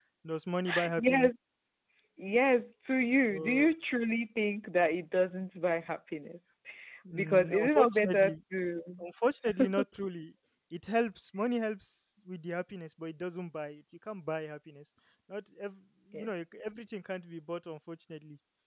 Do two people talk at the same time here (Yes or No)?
Yes